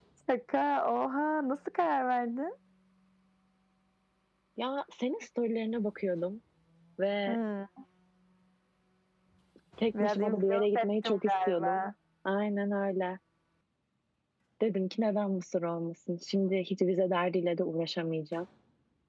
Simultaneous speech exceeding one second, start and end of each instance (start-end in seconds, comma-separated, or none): 10.0-11.8